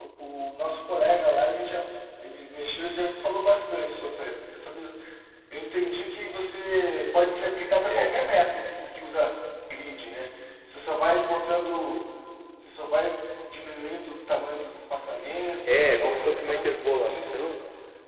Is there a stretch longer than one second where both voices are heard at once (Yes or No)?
Yes